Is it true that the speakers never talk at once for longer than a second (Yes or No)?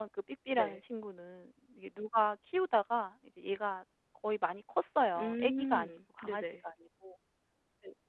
No